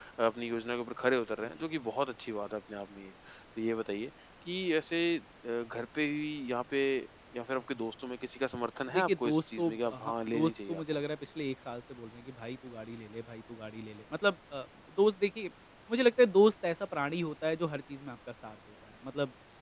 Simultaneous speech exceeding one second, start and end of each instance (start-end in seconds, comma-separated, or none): 8.9-10.8